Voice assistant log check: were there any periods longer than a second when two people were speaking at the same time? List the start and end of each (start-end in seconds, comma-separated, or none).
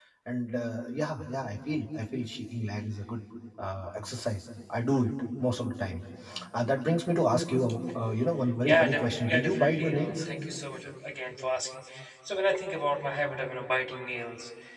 8.7-10.1